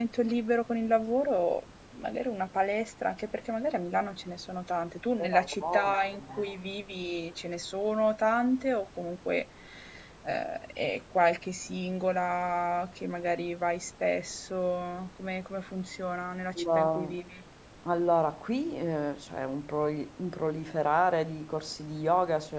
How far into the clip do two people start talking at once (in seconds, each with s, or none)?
5.2 s